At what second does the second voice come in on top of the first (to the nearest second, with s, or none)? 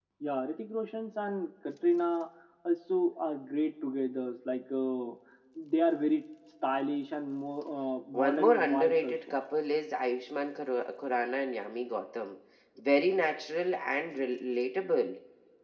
8 s